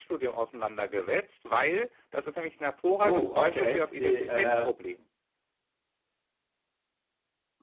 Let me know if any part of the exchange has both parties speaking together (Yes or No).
Yes